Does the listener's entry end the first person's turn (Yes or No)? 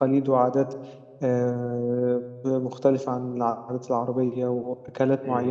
No